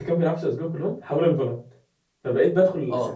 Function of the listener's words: listening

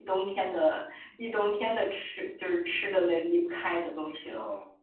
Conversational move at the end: taking over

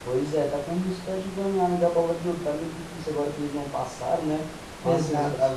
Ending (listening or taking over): listening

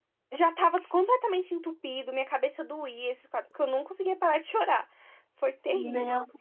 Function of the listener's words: taking over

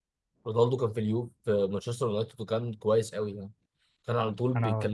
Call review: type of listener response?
listening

